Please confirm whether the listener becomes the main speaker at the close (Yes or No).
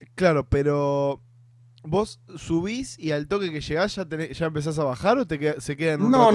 Yes